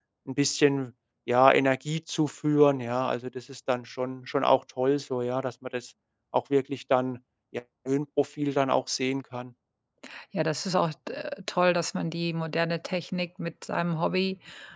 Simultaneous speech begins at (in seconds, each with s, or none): none